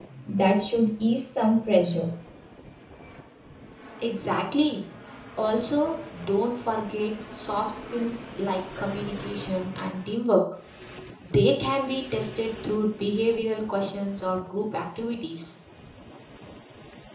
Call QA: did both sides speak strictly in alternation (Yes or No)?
Yes